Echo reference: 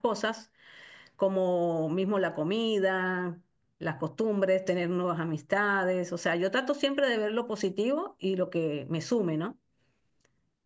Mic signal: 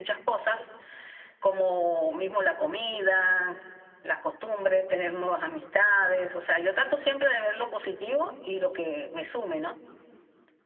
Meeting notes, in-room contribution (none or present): none